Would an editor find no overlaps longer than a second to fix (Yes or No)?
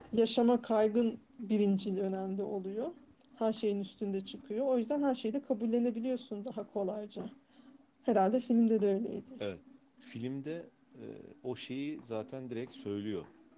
Yes